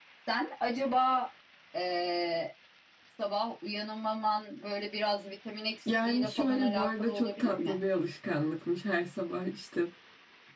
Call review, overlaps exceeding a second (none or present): present